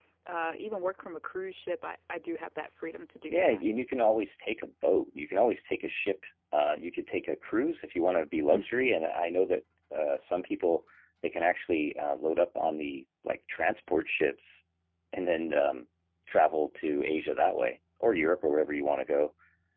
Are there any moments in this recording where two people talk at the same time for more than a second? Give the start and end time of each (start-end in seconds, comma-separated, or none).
none